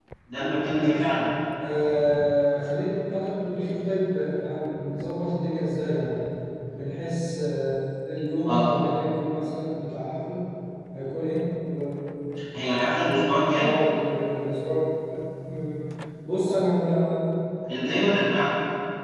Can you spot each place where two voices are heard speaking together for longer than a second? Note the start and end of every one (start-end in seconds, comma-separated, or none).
none